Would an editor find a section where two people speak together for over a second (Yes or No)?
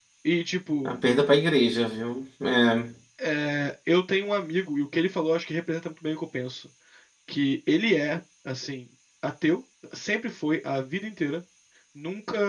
No